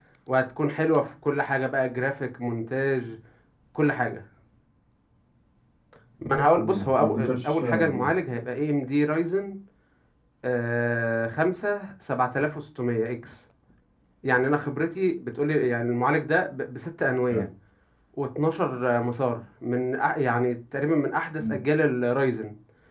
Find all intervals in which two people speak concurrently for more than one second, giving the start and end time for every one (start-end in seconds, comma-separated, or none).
6.5-8.1